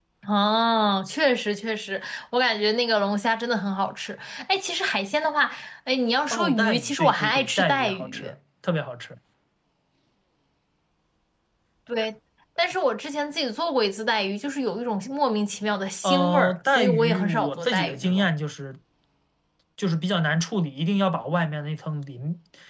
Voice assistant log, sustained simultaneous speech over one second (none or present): present